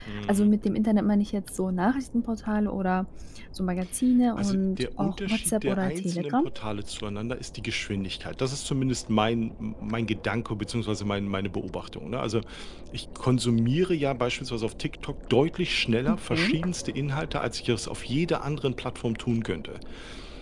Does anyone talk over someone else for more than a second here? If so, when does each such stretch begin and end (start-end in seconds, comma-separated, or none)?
4.4-6.4